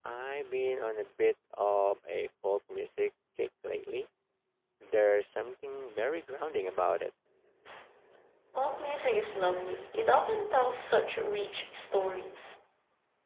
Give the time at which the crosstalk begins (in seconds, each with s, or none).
none